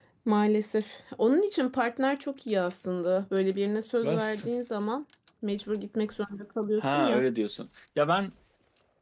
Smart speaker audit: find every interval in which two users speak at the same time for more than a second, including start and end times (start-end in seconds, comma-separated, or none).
none